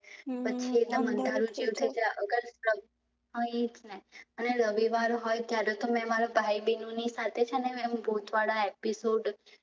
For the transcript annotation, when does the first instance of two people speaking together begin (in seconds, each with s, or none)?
0.7 s